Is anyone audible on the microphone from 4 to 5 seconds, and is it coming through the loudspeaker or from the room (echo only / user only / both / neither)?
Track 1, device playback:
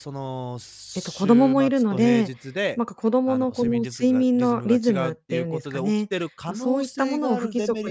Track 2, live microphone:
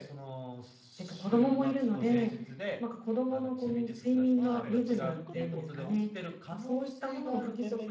both